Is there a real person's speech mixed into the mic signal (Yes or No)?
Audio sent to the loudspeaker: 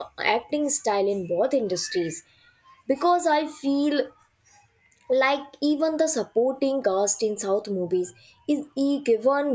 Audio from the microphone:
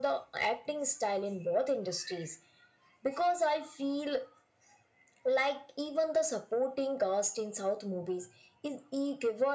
No